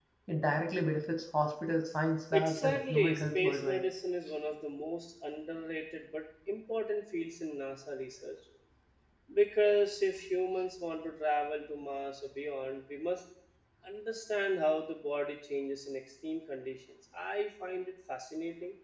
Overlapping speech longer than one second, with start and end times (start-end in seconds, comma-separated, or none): 2.3-3.8